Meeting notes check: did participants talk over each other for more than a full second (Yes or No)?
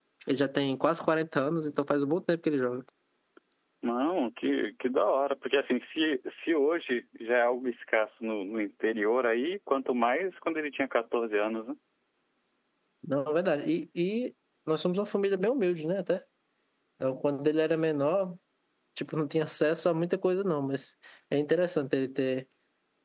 No